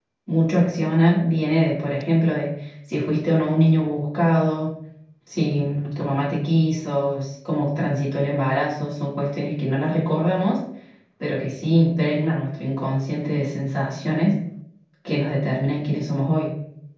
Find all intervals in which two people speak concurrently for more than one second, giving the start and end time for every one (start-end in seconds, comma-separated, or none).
none